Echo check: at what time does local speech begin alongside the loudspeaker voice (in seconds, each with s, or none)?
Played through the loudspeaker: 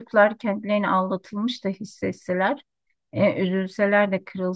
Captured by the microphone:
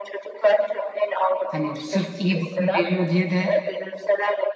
1.5 s